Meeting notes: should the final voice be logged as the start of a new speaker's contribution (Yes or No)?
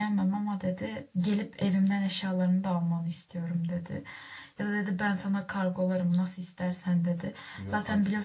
No